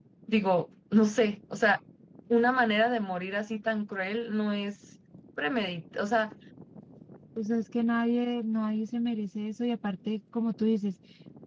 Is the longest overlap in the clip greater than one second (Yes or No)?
No